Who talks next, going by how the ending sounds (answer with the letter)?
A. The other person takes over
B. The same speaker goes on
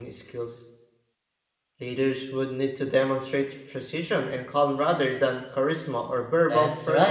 A